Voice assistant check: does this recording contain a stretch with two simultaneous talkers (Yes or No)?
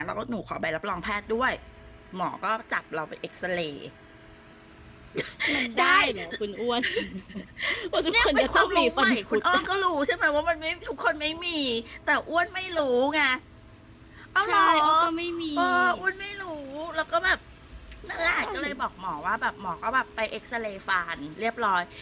Yes